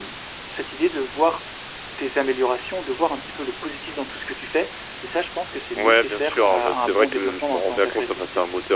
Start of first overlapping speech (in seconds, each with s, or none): 5.7 s